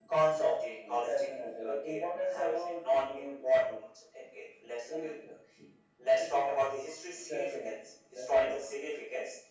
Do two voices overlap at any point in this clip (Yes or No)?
Yes